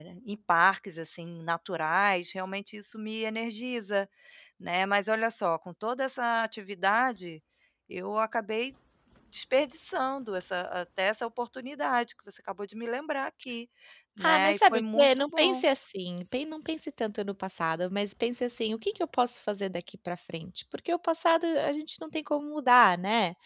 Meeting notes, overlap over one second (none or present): present